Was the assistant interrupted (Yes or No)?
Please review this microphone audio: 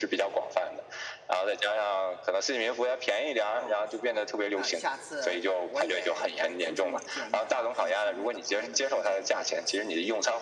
Yes